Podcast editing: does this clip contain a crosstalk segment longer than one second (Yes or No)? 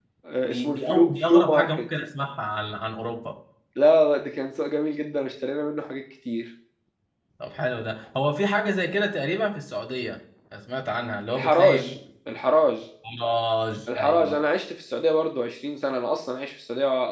Yes